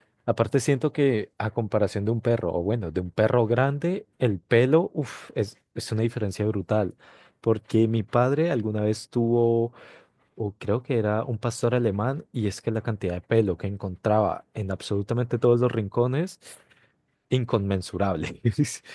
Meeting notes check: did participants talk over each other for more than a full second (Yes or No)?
No